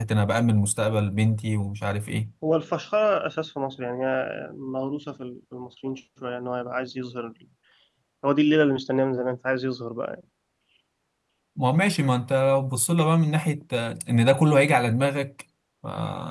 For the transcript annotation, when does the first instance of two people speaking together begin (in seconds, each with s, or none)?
none